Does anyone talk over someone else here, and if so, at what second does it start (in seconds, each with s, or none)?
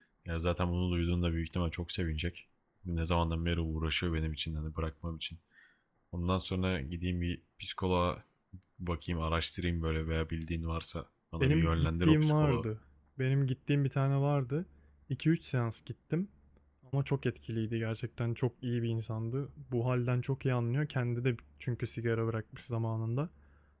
11.4 s